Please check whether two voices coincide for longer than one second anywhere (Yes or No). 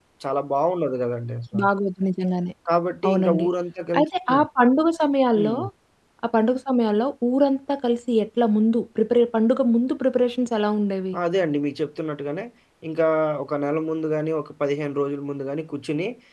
No